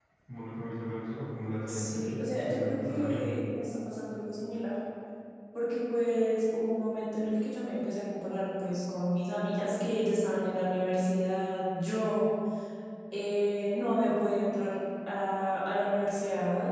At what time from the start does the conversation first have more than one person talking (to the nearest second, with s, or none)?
2 s